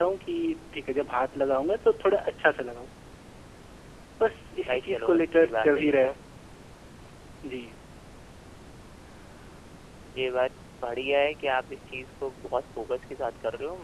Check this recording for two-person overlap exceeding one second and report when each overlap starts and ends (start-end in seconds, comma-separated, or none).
4.7-6.1